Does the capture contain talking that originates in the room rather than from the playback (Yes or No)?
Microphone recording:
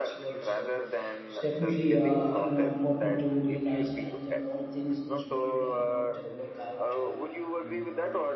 Yes